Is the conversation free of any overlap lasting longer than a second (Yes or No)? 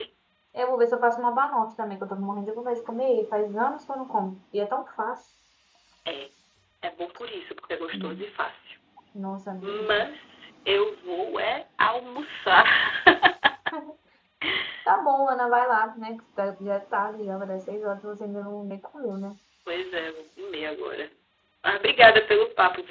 Yes